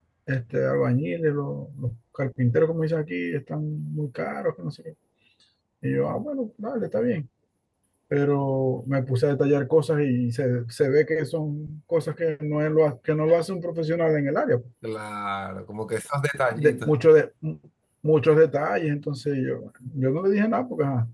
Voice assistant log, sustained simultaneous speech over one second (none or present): none